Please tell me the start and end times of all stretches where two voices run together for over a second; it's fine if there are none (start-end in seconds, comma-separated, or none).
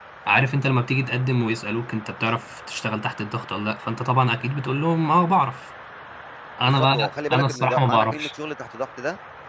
6.6-8.3